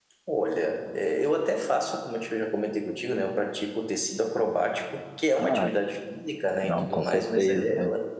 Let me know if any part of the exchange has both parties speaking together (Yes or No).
Yes